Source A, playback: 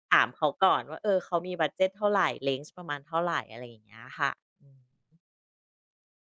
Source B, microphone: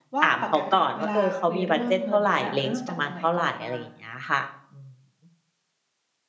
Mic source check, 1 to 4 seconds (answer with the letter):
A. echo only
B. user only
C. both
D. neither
C